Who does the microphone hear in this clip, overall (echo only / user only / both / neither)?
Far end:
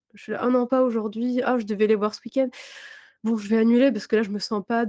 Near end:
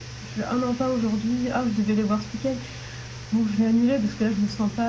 echo only